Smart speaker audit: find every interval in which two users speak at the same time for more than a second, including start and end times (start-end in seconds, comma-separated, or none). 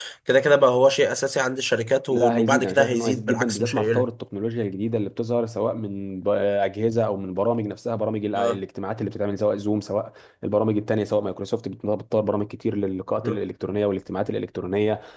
2.1-4.1